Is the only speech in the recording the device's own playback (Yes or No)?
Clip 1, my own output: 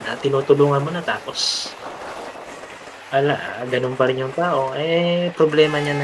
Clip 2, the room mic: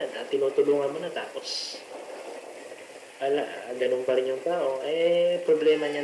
Yes